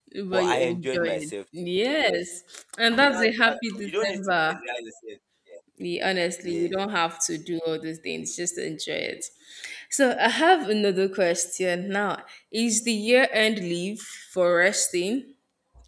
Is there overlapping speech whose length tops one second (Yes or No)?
Yes